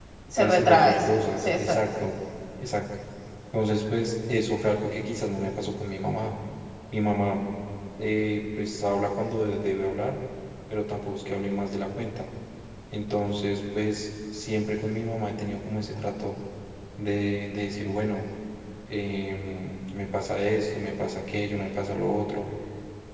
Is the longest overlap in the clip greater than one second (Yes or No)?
Yes